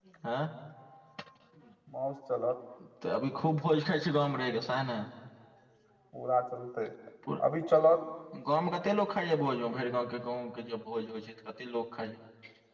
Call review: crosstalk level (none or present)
none